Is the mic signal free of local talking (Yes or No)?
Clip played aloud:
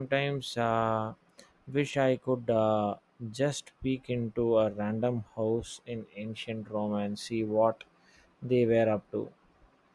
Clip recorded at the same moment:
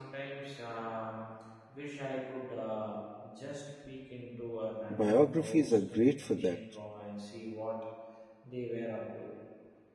No